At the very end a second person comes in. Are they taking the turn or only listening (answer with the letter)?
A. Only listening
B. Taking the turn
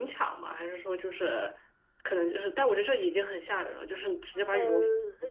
B